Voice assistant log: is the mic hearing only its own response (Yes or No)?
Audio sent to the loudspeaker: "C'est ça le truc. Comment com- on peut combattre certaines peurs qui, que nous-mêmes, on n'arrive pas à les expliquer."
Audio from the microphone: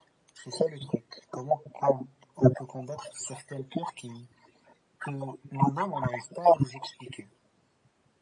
Yes